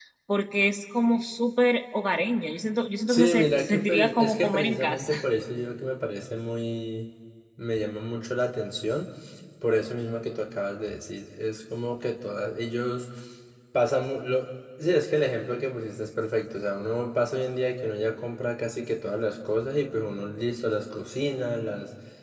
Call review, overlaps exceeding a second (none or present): present